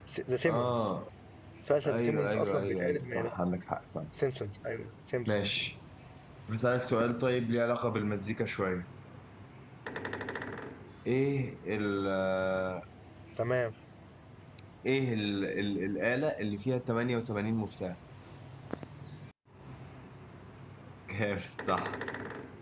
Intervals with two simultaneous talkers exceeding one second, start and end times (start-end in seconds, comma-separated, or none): 1.8-3.3